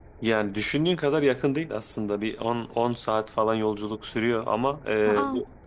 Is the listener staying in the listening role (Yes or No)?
Yes